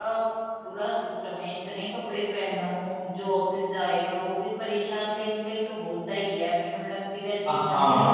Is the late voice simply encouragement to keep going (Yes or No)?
No